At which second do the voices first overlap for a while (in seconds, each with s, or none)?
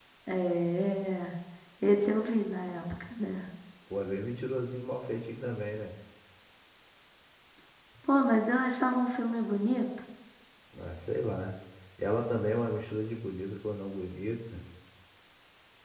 none